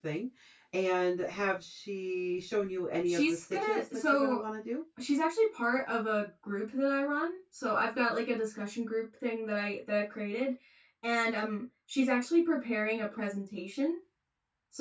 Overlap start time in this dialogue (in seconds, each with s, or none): 3.1 s